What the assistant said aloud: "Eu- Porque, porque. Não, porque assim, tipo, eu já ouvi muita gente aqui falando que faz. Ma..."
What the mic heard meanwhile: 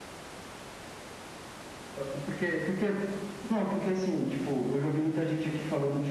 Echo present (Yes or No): Yes